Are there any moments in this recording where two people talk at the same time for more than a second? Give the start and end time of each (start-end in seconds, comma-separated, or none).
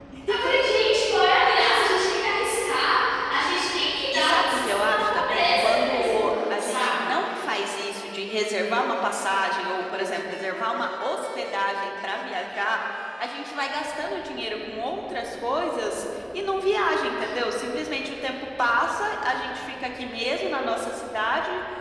4.1-7.1